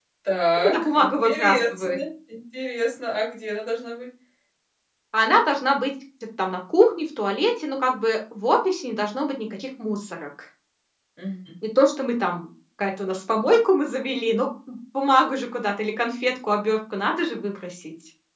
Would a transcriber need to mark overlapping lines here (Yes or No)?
Yes